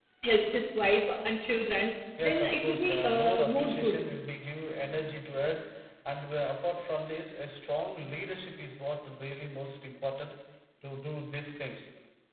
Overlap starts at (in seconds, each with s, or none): 2.2 s